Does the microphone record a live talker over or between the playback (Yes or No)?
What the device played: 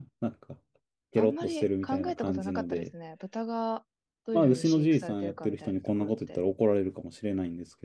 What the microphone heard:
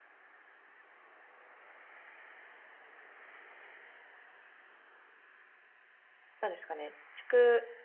Yes